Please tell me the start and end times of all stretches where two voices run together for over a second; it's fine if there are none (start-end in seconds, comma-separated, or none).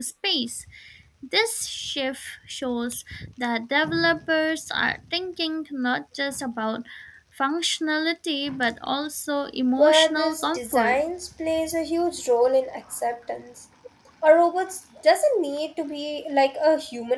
9.8-11.0